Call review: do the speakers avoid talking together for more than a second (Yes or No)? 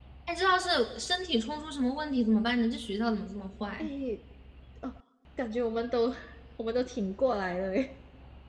Yes